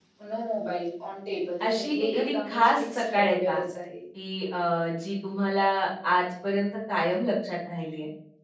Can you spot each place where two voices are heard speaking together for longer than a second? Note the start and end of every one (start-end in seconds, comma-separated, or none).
1.6-3.6